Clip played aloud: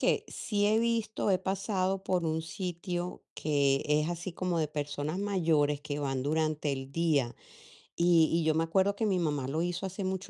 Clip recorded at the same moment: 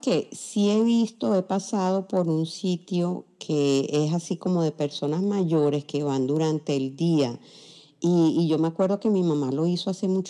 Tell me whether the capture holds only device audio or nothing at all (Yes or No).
Yes